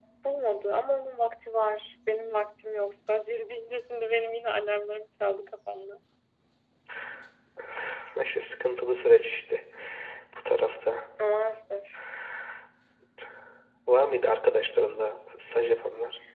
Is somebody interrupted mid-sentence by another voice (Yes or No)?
No